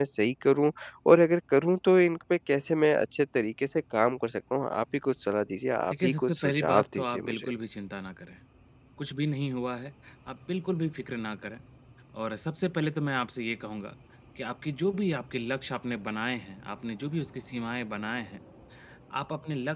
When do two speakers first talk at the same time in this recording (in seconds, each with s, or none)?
5.9 s